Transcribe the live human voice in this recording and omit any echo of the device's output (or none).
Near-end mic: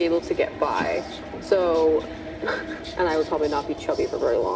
none